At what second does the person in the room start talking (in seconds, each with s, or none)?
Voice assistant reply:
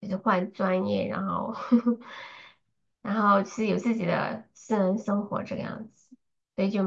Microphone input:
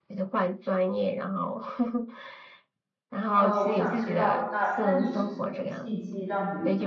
3.3 s